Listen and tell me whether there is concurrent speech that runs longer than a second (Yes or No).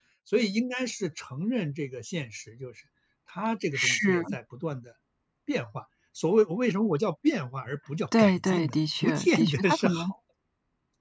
Yes